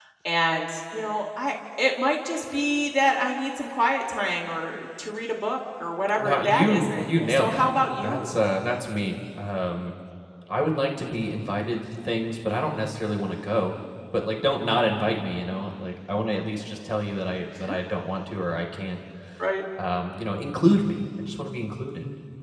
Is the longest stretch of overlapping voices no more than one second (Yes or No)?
No